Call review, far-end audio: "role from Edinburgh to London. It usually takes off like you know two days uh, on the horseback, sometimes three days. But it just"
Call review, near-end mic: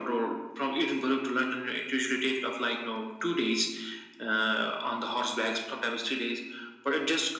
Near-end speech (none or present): none